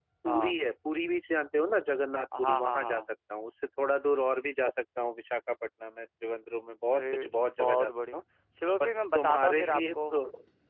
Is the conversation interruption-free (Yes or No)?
No